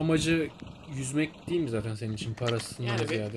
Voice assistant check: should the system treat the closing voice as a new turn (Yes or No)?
Yes